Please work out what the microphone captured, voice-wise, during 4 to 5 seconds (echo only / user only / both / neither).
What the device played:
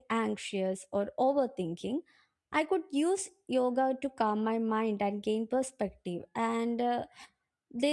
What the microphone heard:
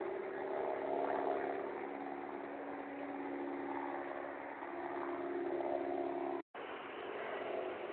neither